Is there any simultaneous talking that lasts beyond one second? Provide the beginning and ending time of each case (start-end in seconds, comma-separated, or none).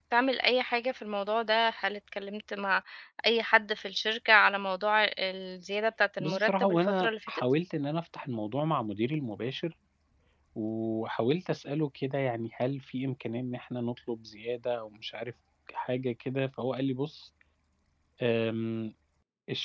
6.2-7.4